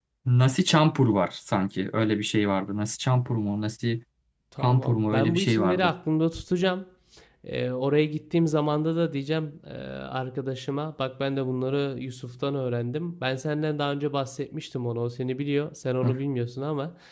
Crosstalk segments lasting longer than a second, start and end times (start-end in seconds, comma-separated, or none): 4.6-5.9